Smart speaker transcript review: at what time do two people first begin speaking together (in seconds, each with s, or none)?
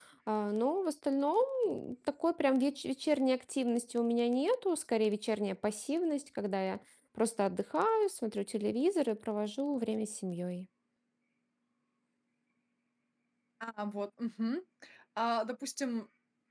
none